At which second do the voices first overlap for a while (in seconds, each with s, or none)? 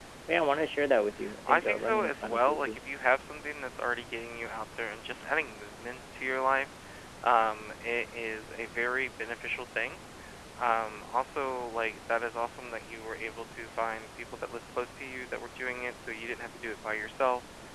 1.5 s